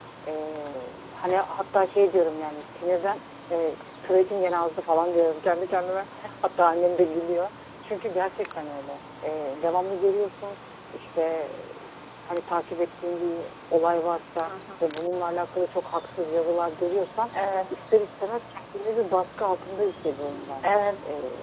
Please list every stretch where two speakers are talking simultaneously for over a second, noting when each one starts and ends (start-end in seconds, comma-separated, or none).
none